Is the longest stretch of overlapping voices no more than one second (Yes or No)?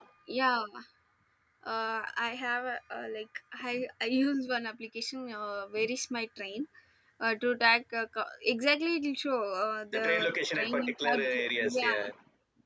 No